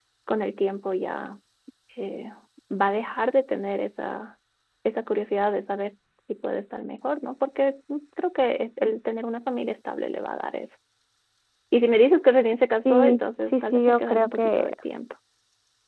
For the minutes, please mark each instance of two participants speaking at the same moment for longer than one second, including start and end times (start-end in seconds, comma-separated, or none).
12.8-14.7